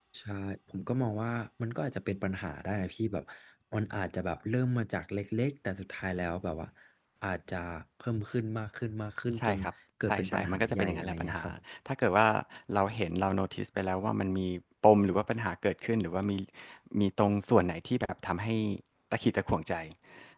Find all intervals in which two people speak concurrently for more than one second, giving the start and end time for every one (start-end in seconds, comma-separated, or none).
10.1-11.4